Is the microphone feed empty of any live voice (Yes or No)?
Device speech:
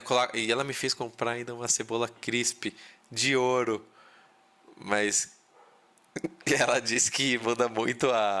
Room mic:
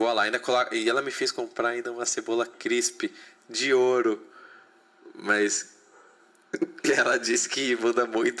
Yes